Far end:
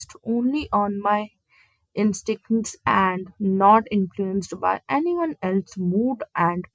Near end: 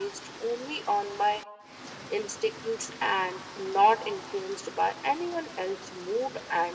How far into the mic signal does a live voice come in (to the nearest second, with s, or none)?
none